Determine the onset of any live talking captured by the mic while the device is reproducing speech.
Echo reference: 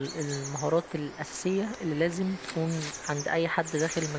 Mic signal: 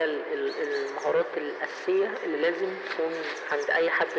none

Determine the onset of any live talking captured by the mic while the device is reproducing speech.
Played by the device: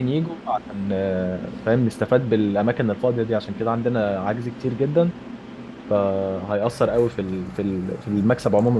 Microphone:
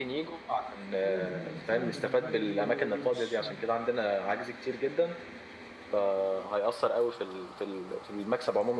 1.0 s

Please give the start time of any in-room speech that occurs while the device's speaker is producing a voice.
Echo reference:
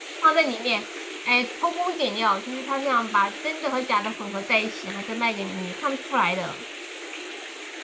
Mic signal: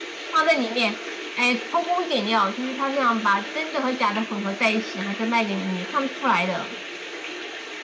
none

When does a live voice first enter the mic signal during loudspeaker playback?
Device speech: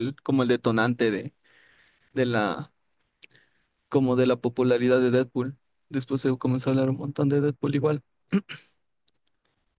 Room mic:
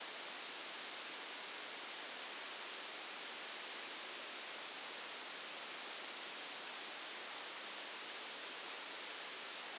none

